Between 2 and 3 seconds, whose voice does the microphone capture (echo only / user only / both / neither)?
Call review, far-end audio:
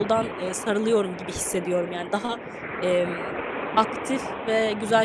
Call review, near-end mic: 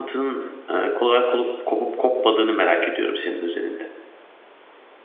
user only